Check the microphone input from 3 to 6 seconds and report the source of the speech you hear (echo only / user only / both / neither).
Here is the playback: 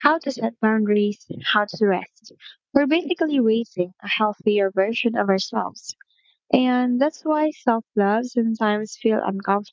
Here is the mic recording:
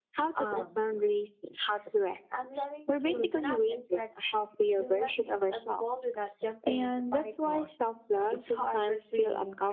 both